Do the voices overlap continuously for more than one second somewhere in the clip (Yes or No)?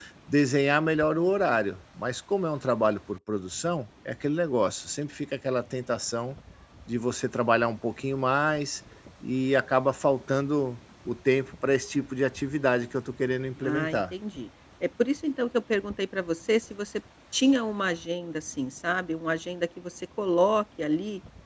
No